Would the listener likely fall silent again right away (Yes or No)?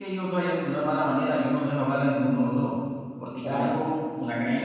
Yes